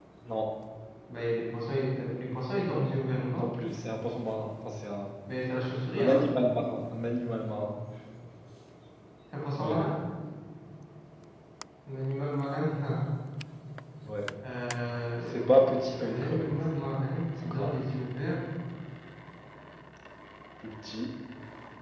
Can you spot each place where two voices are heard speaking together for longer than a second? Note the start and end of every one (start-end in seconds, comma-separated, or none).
15.2-16.5